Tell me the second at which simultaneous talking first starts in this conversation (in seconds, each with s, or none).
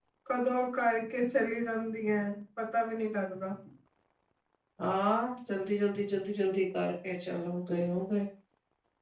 none